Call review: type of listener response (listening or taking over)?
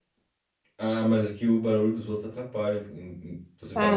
taking over